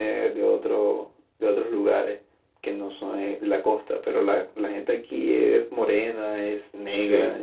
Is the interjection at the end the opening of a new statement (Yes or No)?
No